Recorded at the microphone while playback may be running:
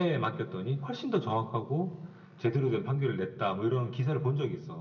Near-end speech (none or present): none